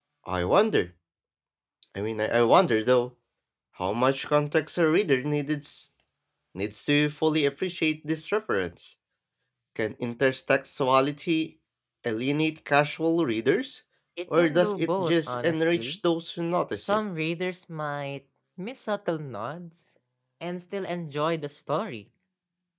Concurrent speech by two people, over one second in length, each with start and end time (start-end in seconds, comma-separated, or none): 14.4-16.0